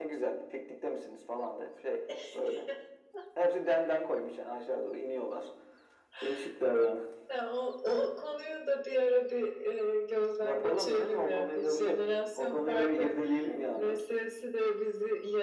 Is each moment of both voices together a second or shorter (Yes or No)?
No